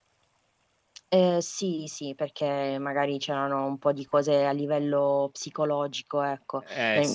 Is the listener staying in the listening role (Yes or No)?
Yes